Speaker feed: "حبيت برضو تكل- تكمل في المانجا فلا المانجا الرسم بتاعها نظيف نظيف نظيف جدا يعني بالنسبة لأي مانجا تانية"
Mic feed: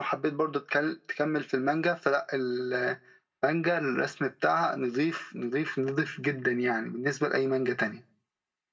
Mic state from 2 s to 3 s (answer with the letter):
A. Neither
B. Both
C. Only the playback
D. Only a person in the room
C